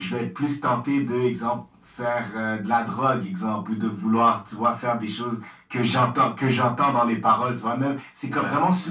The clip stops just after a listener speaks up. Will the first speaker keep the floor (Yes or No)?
Yes